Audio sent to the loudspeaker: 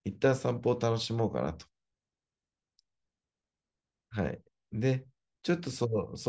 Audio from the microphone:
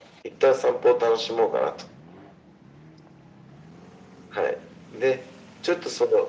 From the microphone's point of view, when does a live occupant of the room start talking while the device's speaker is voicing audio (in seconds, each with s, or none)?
none